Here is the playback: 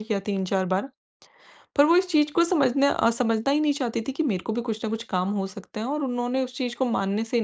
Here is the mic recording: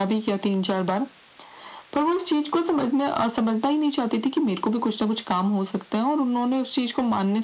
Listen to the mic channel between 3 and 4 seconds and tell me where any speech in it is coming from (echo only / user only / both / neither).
echo only